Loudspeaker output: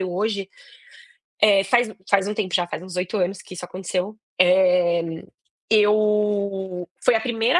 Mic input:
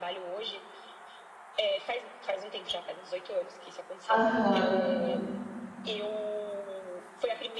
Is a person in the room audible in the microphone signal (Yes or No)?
Yes